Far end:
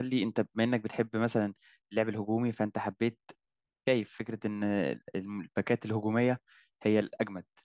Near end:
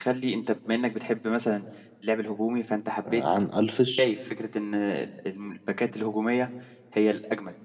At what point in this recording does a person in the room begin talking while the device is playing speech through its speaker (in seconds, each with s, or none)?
3.1 s